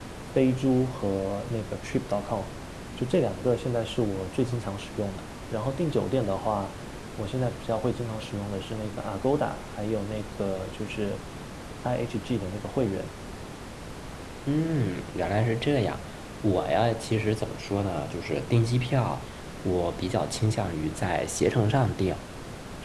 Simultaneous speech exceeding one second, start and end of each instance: none

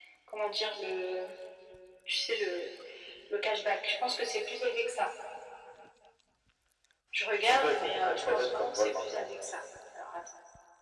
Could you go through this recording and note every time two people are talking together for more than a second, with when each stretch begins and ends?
7.5-9.3

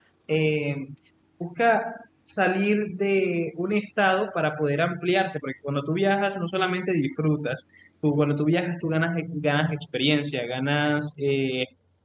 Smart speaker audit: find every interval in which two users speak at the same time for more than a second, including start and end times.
none

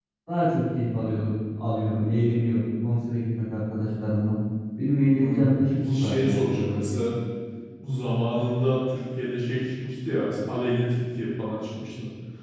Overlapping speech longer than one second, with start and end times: 5.2-6.4

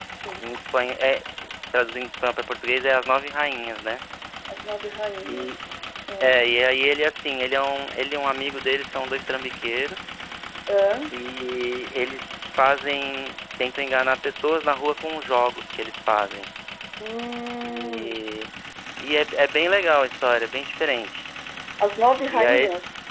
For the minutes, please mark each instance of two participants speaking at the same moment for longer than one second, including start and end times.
none

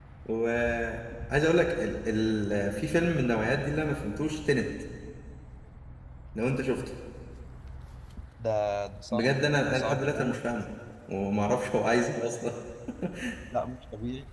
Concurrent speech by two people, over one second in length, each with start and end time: 9.1-10.4

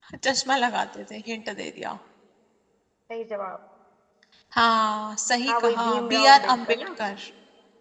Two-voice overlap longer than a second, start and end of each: 5.5-6.9

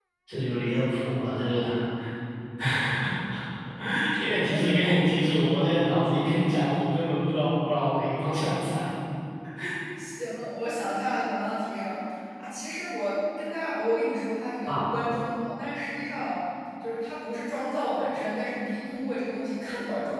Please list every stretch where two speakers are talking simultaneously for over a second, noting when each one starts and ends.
none

